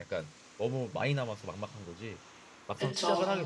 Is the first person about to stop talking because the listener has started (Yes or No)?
No